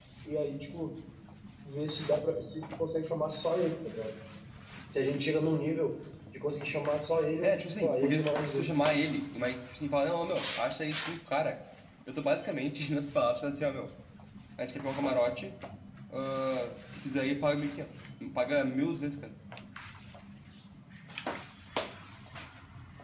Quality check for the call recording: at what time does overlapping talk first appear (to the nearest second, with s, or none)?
7 s